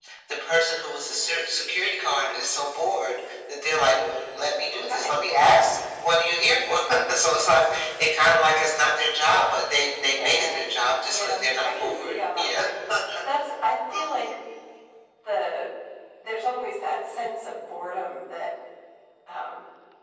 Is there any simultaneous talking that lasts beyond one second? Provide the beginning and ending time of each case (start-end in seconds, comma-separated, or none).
11.0-12.6